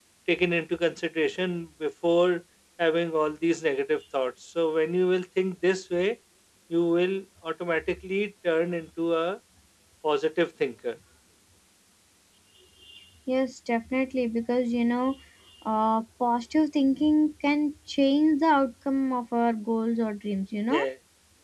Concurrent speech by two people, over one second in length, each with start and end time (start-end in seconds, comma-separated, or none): none